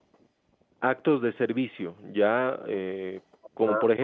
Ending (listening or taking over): taking over